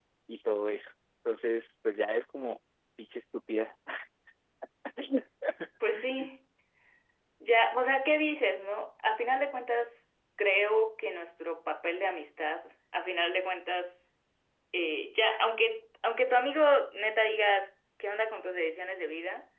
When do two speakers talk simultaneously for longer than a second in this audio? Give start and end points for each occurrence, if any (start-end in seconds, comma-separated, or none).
none